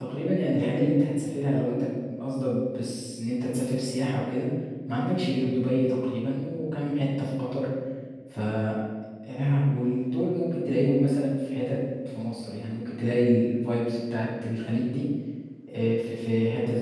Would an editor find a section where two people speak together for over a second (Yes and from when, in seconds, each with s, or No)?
No